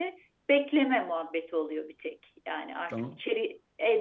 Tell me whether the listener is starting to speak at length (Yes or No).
No